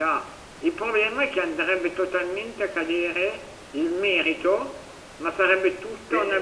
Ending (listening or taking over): listening